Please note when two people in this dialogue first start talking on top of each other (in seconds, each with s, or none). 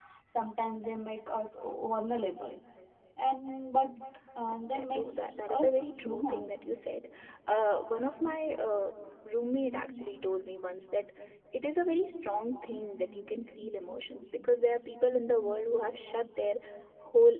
4.6 s